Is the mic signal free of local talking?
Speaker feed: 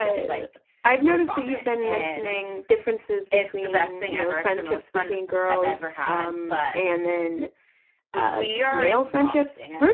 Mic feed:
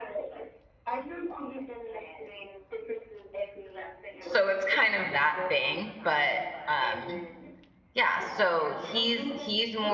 No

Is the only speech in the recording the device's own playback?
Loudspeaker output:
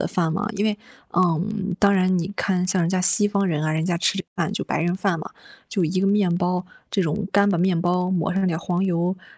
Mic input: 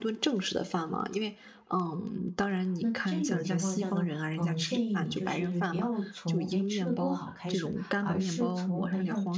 No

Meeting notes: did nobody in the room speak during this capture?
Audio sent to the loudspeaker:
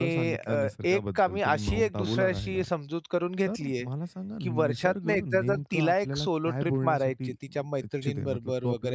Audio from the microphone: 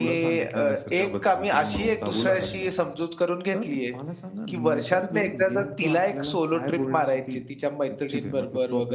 Yes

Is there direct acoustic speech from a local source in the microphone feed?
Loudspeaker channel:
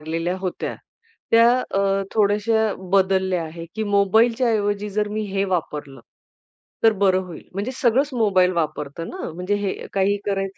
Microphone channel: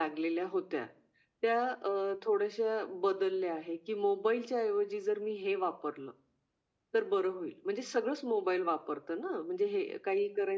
No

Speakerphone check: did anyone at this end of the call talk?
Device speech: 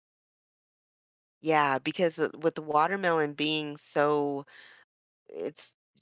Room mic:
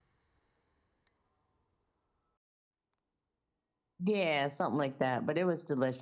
Yes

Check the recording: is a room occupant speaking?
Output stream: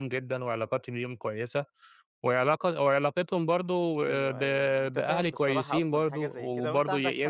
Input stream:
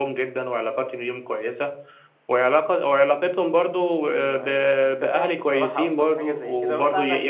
No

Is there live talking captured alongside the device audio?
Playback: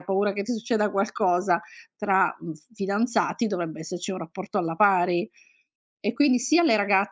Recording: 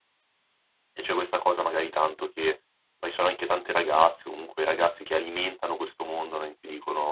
Yes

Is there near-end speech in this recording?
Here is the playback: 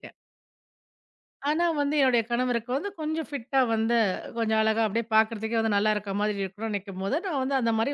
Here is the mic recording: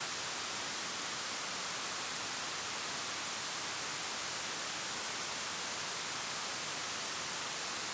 No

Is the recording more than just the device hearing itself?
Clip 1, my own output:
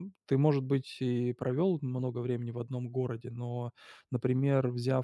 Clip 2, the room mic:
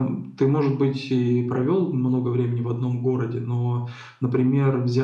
No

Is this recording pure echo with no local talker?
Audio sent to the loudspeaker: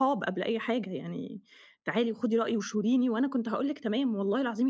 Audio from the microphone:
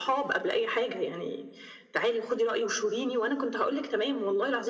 Yes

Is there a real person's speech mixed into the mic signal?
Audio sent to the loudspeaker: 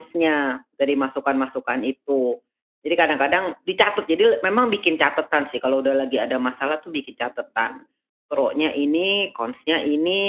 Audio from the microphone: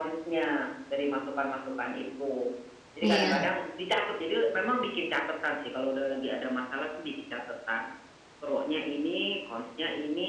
Yes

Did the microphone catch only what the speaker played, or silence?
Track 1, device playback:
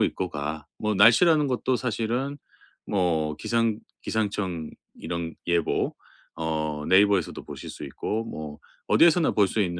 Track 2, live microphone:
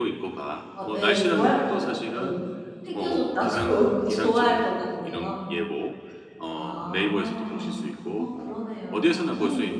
No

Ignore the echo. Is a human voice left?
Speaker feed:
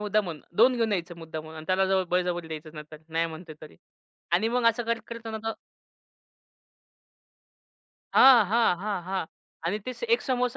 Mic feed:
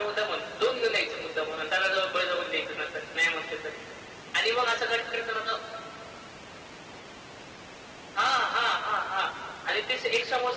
No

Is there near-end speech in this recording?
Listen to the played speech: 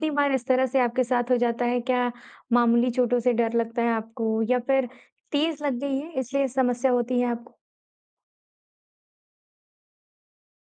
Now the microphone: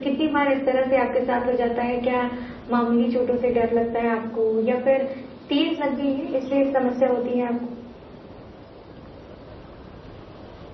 No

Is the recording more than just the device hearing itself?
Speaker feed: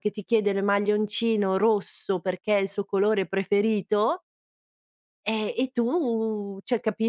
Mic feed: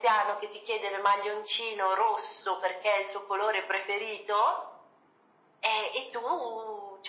No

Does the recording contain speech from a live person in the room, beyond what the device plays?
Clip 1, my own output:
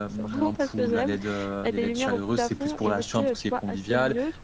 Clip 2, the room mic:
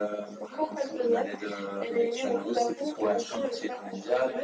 No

